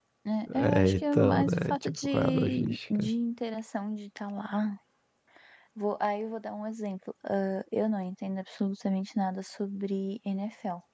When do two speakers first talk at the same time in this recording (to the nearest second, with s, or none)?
1 s